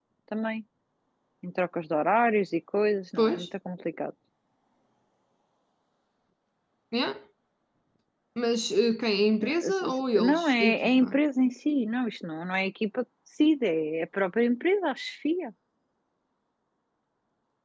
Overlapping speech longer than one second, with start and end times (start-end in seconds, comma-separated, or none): 9.4-11.2